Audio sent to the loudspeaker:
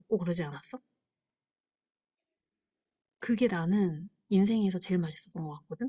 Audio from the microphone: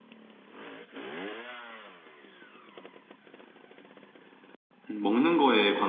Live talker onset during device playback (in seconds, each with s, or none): 4.9 s